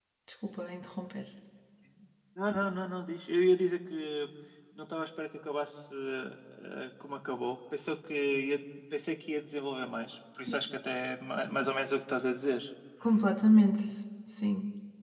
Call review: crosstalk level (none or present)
none